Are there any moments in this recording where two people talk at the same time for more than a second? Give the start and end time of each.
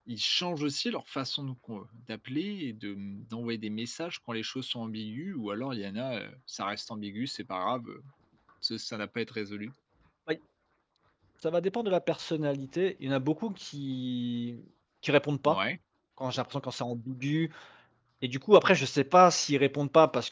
none

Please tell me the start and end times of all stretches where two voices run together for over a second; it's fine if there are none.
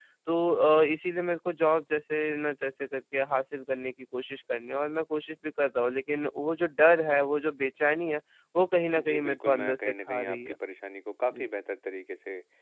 9.0-10.5

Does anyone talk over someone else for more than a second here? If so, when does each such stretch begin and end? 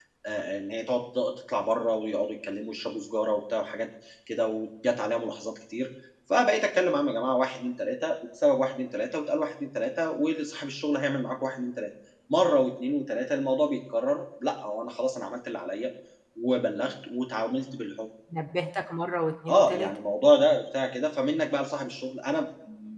none

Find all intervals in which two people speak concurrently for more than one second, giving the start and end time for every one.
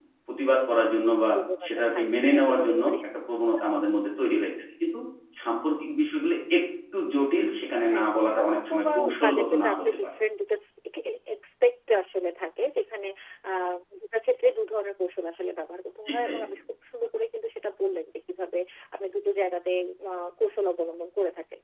1.6-2.9, 8.0-10.1

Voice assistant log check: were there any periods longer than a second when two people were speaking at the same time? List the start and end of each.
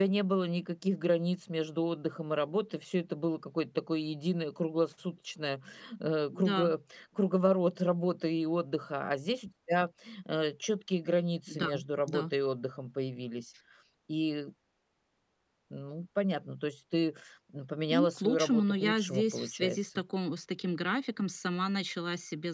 17.9-20.0

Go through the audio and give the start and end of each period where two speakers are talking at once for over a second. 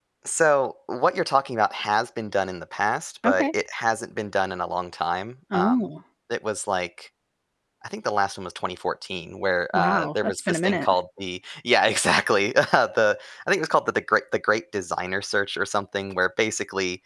9.7-10.9

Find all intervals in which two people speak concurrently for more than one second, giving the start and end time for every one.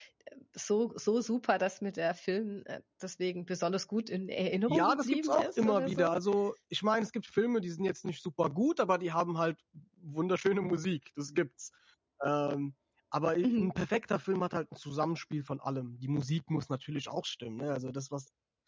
4.7-6.2

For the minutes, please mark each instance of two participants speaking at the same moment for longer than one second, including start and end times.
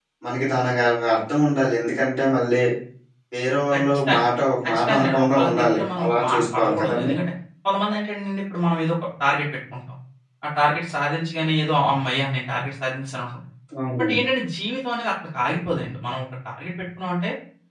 4.7-7.1

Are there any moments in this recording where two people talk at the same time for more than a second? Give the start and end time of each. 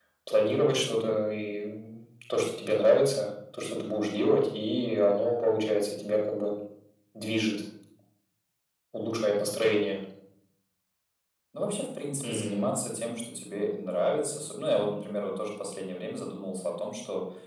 none

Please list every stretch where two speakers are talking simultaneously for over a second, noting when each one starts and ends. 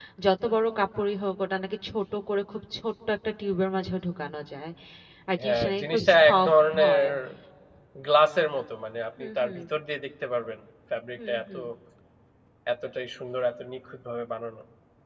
5.4-7.0

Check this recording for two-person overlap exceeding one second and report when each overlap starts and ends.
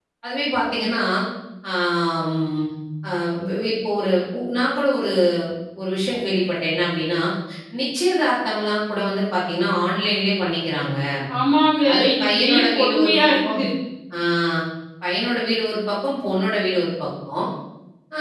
11.9-13.6

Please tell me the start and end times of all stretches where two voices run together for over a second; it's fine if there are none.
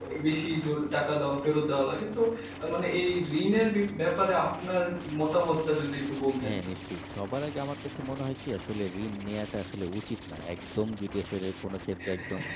none

